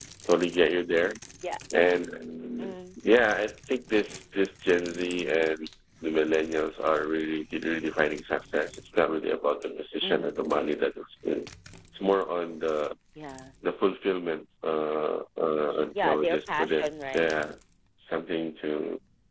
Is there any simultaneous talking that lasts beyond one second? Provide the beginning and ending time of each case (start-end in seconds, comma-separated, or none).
16.0-17.3